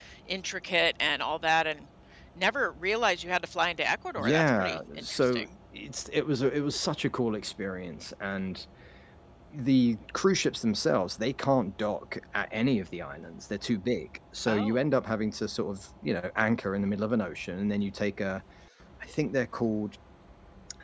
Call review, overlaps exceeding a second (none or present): present